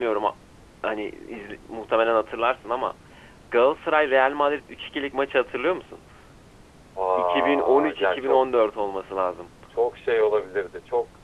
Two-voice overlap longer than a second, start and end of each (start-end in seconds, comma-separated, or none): 7.2-8.4